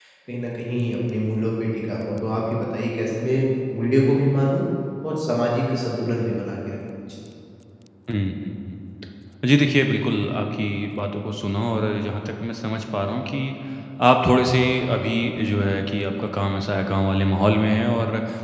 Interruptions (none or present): none